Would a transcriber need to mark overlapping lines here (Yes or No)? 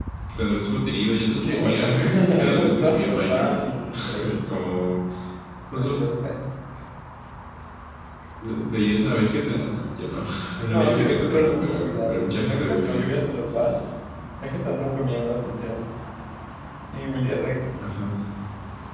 Yes